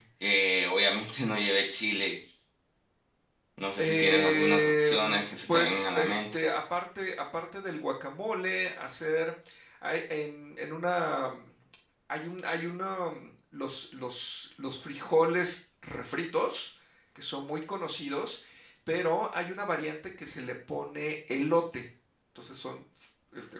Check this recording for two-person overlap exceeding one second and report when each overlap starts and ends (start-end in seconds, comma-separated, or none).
3.8-6.3